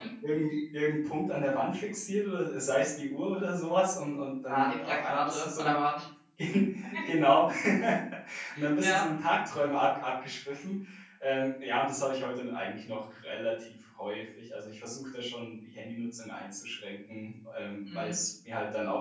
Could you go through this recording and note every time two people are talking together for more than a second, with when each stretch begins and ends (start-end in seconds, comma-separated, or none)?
4.5-5.7